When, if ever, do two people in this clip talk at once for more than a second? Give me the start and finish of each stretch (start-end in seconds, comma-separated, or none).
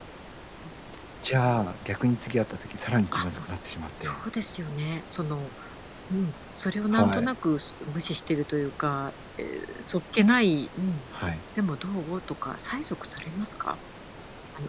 none